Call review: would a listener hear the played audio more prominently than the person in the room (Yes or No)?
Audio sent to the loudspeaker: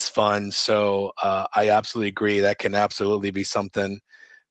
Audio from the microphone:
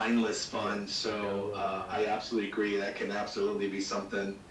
Yes